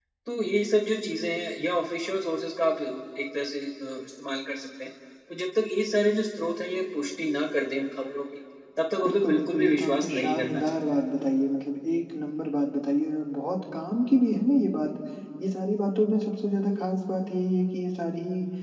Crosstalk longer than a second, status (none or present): present